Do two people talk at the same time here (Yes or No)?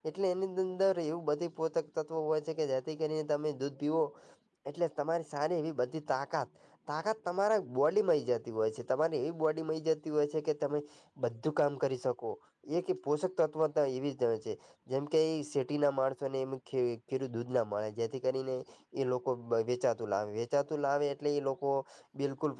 No